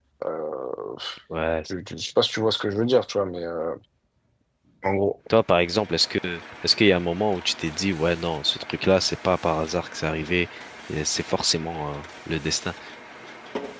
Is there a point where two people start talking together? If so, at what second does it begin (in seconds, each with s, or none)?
none